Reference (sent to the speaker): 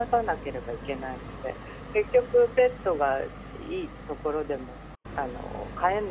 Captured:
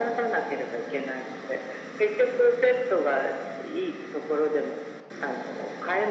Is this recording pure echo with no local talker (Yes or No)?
Yes